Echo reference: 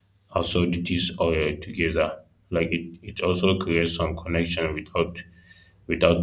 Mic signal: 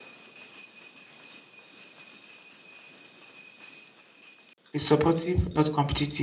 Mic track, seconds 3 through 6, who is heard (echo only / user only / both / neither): user only